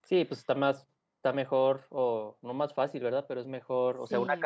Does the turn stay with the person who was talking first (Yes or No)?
Yes